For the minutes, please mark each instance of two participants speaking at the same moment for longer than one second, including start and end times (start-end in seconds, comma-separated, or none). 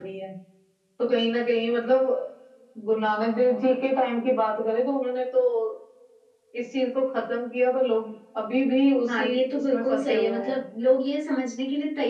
9.1-10.6